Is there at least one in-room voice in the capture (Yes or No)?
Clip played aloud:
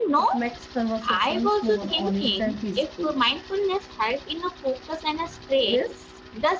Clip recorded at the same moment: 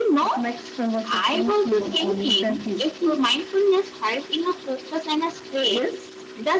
No